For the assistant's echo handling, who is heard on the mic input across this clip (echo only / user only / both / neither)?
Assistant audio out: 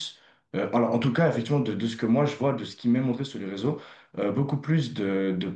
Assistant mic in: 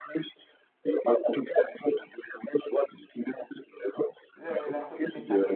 both